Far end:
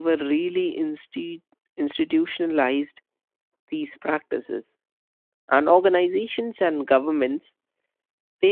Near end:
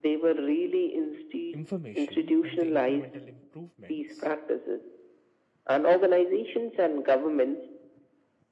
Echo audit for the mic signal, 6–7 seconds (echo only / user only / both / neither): echo only